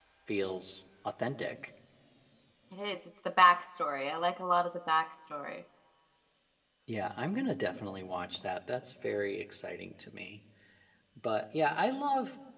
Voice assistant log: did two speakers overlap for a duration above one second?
No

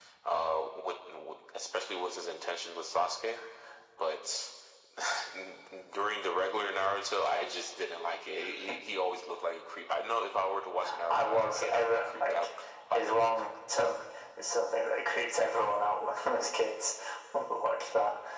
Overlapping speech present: Yes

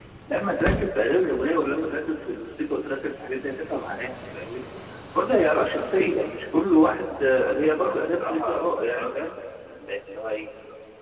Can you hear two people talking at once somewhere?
Yes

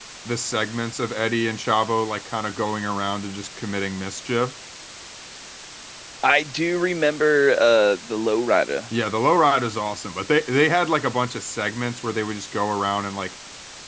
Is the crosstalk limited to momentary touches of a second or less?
Yes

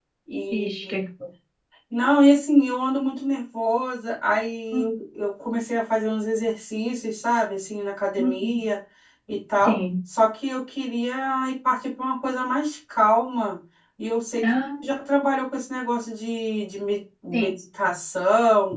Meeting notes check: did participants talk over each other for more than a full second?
No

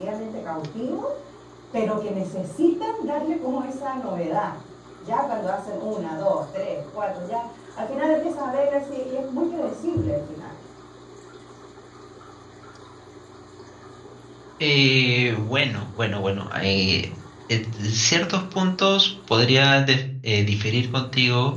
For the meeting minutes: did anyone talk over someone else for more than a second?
No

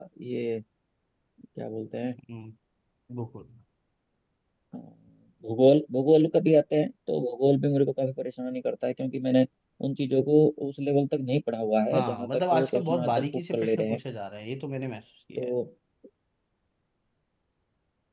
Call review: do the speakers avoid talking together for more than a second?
No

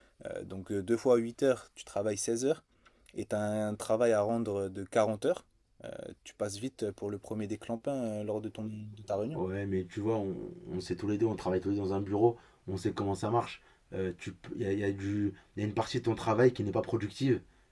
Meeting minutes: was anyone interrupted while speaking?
No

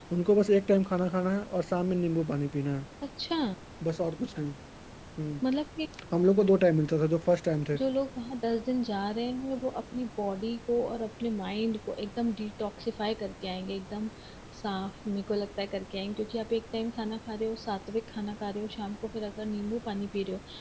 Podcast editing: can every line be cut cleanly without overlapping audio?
Yes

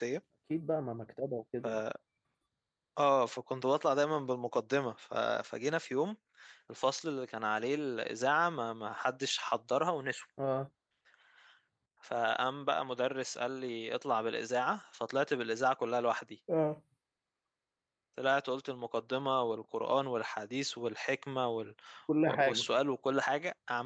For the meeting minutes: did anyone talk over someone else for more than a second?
No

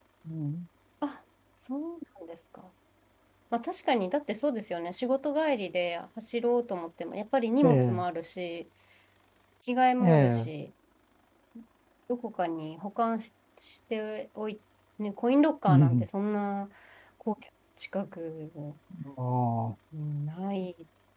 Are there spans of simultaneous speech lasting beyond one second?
No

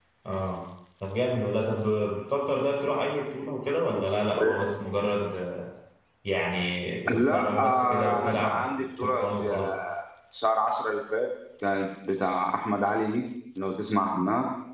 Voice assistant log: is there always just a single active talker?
No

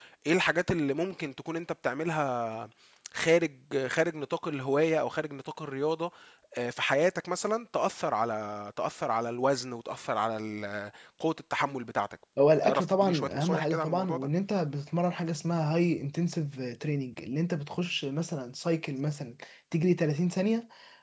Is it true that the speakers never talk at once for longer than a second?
No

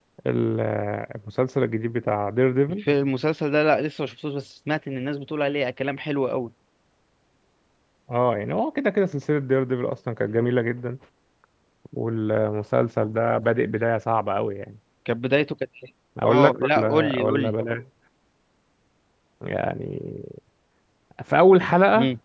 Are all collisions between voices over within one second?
No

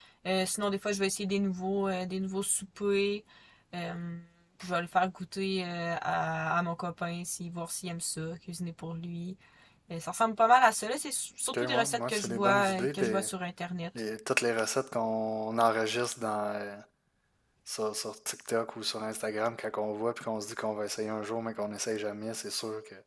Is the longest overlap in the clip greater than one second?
Yes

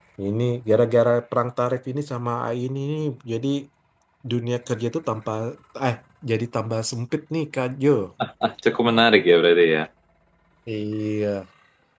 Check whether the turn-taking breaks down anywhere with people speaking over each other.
No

